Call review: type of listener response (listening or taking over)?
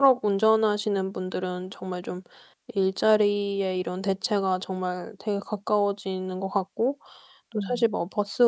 listening